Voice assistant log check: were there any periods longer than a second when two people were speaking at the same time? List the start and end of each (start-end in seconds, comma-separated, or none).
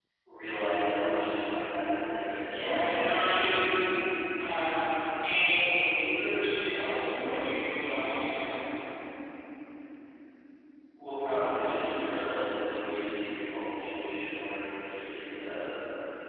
2.5-3.7